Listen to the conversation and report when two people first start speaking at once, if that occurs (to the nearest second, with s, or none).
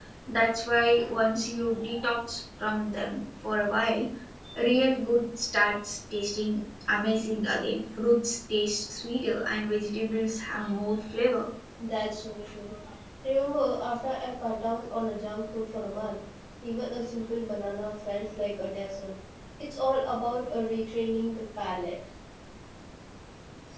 none